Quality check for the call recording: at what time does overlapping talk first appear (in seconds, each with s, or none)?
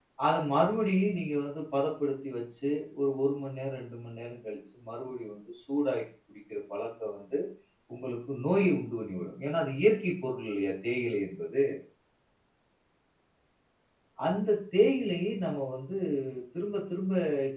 none